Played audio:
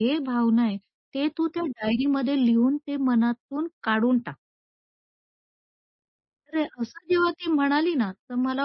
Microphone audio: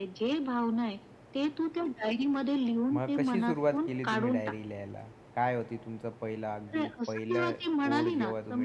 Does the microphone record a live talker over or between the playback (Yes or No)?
Yes